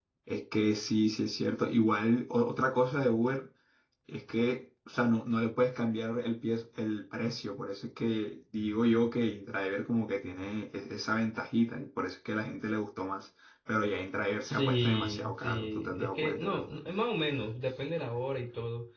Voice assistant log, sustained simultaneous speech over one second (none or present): present